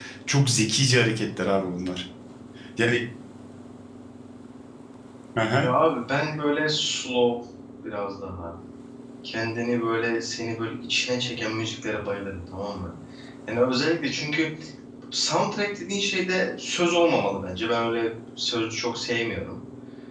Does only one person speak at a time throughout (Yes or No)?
Yes